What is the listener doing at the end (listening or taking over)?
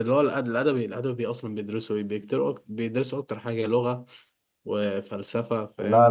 taking over